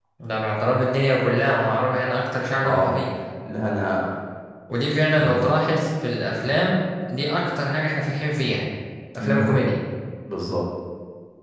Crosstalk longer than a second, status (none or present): none